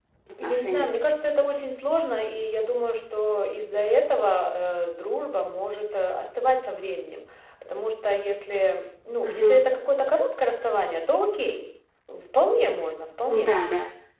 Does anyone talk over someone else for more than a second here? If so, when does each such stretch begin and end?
none

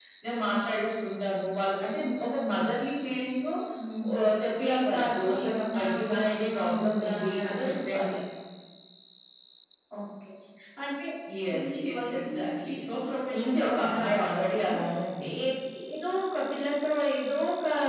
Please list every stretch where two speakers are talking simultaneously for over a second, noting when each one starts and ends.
4.7-8.2, 11.5-12.9, 13.4-14.6

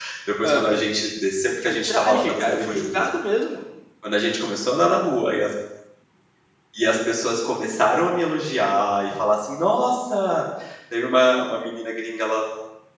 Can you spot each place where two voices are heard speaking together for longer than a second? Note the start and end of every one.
1.6-3.1

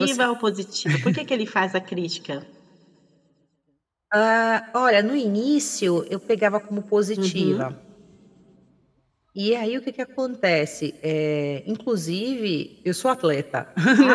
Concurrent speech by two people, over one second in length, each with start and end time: none

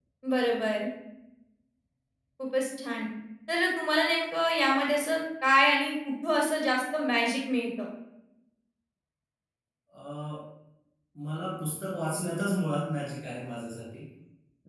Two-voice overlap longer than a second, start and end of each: none

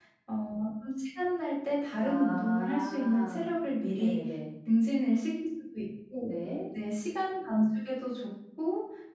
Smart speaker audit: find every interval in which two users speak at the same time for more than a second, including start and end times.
2.0-3.5

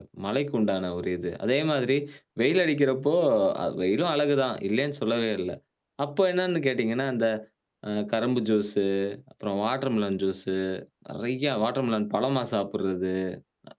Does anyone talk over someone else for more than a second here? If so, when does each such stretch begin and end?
none

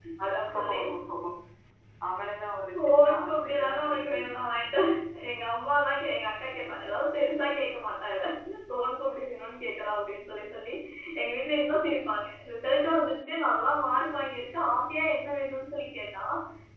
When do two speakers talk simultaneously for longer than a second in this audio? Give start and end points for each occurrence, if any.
2.7-4.6

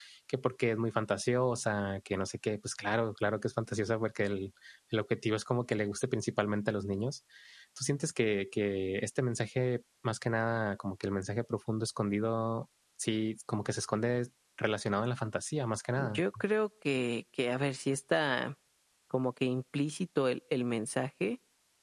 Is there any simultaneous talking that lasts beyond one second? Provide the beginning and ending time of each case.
none

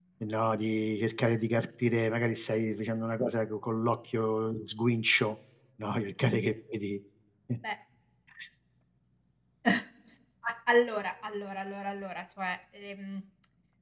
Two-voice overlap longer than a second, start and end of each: none

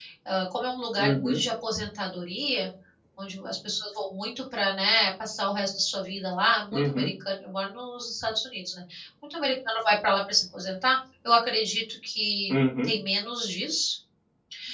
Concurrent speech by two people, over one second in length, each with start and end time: none

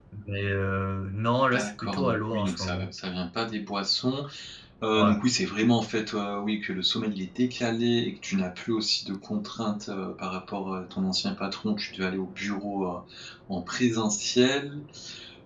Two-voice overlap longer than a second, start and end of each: 1.5-2.9

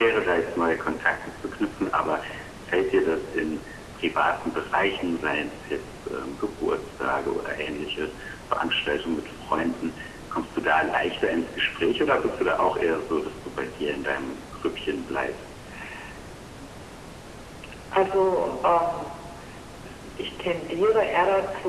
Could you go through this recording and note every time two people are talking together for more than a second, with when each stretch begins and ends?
none

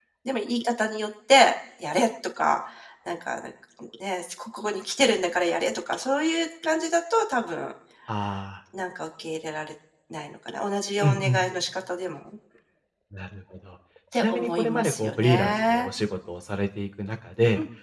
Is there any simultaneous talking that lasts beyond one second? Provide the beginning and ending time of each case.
14.1-15.9

